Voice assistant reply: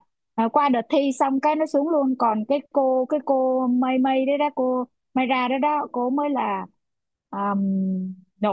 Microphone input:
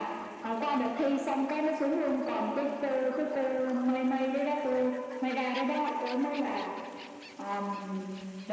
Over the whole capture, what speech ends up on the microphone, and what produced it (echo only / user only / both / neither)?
echo only